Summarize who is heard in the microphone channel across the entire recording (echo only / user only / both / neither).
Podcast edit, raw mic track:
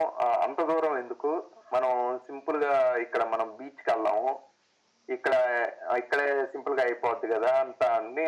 echo only